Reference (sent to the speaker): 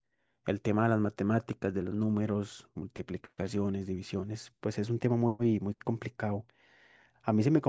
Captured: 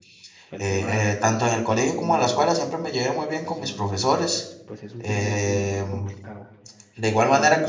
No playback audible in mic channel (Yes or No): No